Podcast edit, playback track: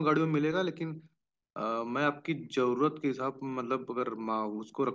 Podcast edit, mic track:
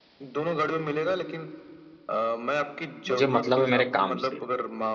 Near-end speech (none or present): present